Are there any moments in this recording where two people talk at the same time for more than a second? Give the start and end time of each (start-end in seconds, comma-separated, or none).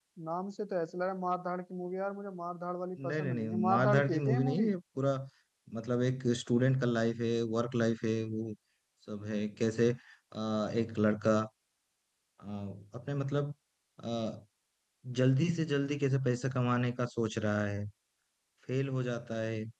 3.0-4.7